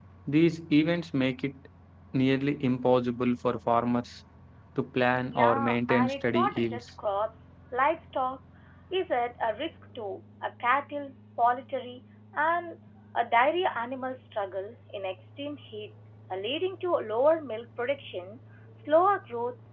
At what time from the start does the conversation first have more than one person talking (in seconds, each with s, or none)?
5.3 s